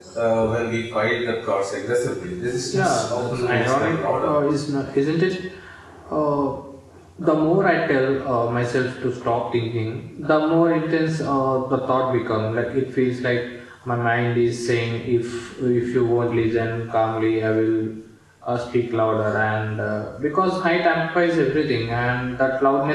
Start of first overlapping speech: 2.6 s

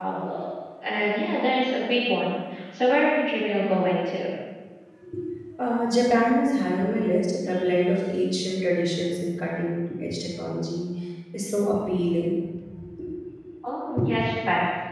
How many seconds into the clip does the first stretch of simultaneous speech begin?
none

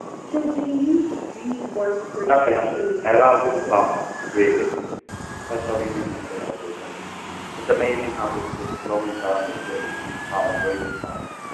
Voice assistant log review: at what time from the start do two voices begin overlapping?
2.3 s

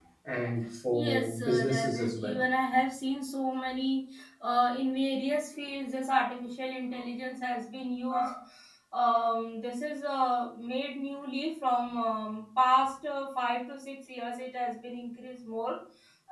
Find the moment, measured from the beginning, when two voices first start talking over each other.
0.9 s

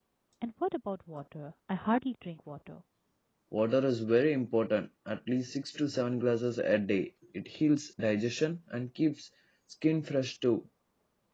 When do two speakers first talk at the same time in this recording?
none

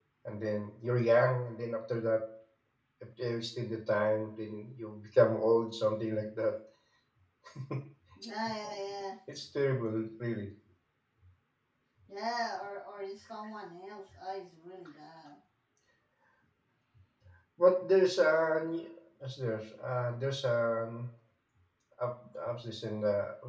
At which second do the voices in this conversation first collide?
none

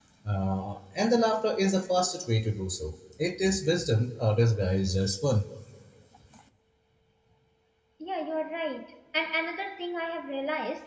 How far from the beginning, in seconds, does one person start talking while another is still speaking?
none

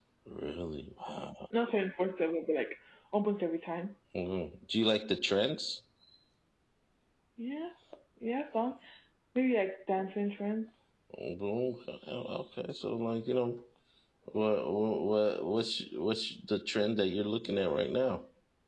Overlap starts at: none

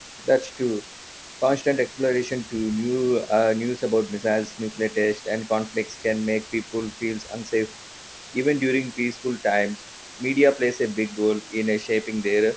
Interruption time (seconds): none

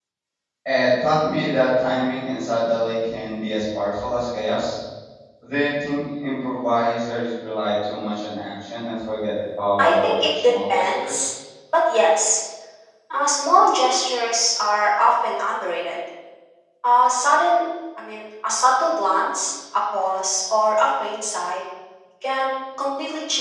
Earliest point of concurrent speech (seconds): 9.8 s

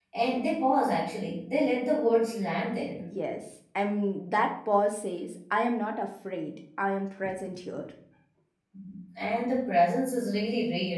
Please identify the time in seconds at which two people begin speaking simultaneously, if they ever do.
none

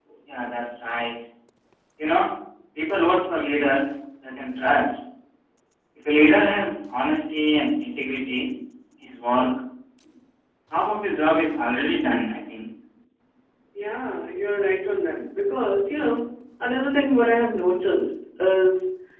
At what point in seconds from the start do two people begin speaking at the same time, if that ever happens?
none

